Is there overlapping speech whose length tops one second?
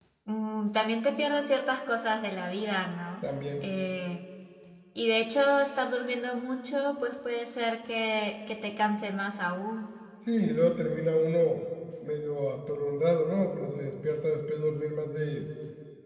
No

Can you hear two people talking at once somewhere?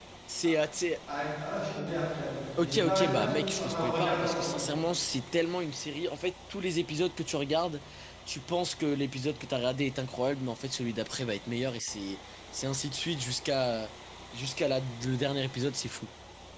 Yes, from 2.6 s

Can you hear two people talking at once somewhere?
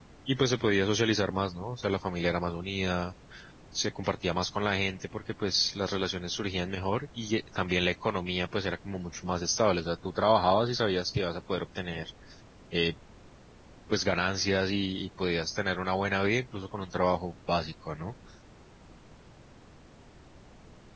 No

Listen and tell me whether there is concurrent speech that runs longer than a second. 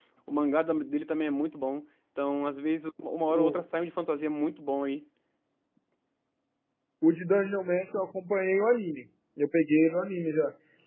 No

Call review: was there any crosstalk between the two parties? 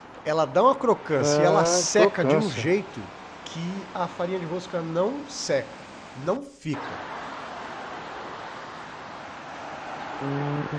Yes, from 1.2 s

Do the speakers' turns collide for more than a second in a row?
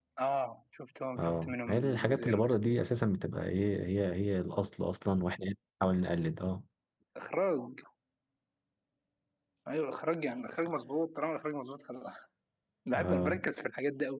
Yes, from 1.2 s

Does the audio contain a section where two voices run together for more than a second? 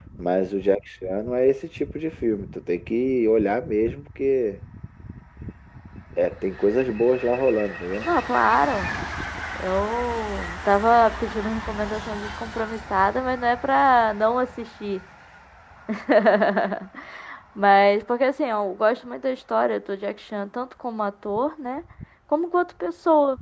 No

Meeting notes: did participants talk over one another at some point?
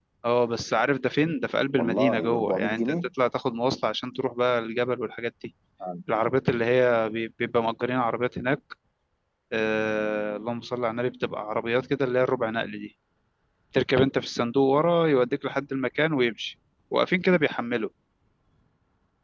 Yes, from 1.8 s

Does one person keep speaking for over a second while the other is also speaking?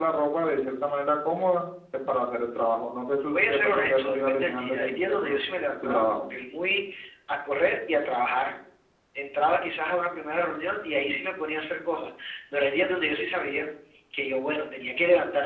Yes, from 3.3 s

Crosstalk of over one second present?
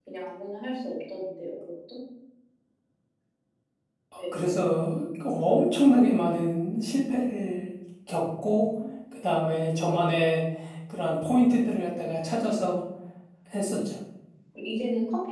No

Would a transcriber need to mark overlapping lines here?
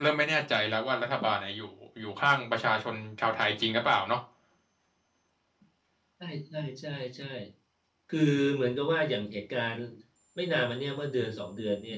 No

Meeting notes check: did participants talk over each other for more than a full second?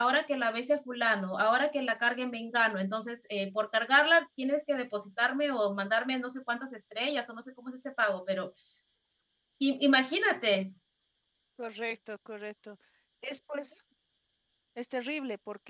No

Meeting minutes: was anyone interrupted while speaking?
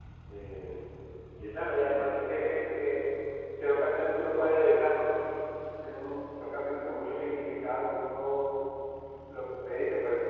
Yes, from 1.5 s

